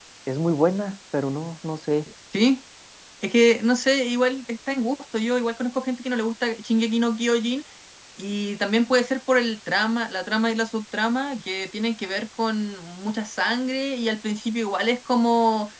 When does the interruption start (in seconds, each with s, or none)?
none